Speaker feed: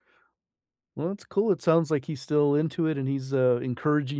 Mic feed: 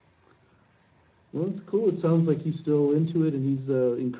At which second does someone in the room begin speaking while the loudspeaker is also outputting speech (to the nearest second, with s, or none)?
none